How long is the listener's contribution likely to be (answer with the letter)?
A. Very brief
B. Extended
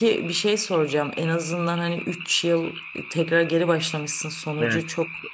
A